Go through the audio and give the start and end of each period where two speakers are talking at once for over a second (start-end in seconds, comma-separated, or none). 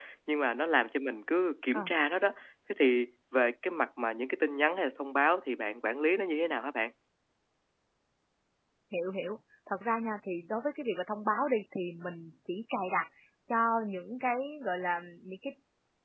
none